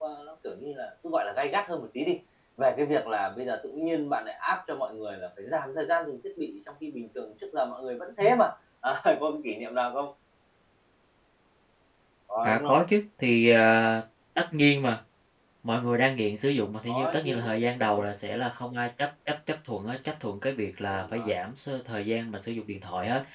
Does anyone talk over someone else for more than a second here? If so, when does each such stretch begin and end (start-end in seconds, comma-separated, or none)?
16.9-18.1